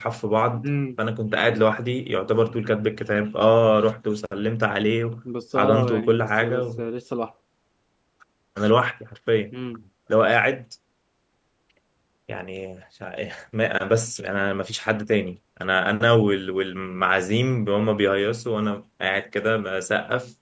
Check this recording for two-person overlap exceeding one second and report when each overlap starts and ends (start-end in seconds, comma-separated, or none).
5.5-6.8